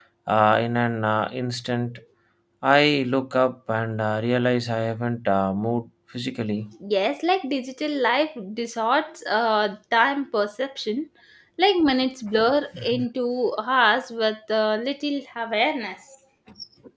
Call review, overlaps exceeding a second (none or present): none